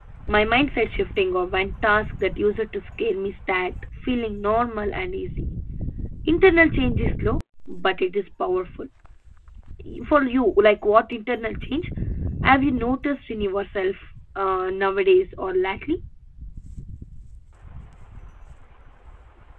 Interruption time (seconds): none

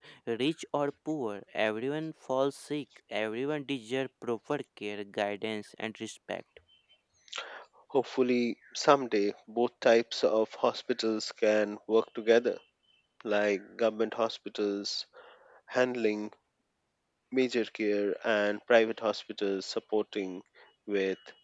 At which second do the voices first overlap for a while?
none

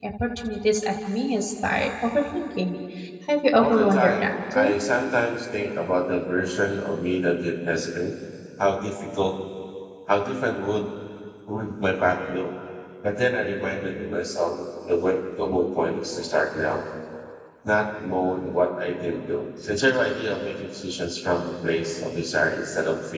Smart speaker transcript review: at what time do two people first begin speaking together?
3.6 s

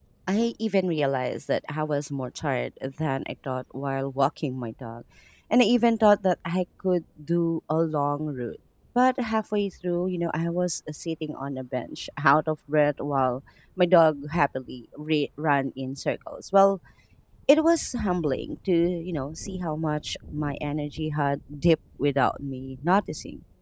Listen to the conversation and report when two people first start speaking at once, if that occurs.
none

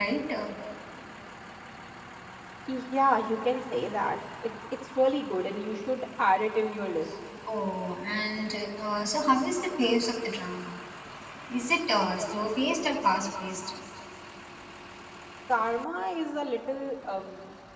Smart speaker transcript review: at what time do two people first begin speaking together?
none

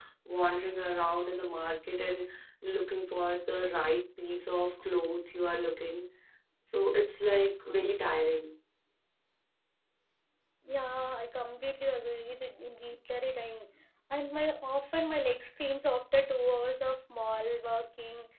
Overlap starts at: none

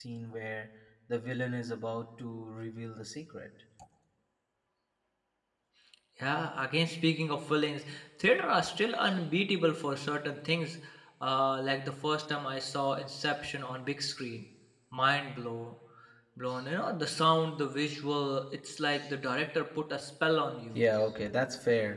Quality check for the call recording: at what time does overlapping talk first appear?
none

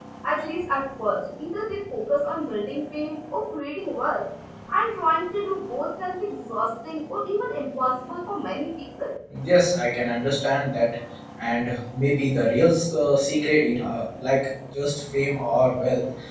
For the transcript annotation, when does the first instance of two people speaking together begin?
none

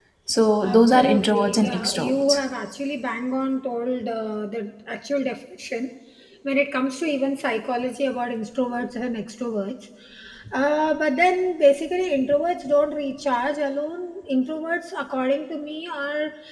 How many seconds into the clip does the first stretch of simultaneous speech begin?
0.6 s

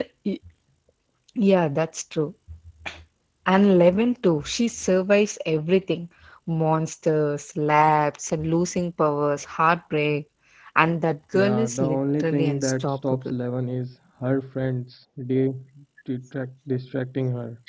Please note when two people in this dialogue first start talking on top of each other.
11.3 s

